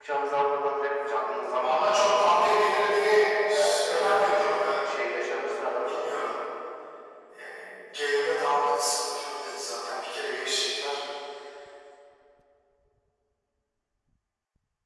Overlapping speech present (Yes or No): Yes